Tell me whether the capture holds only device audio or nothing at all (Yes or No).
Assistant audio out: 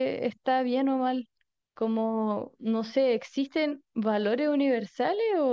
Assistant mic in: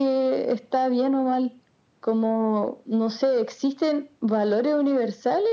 Yes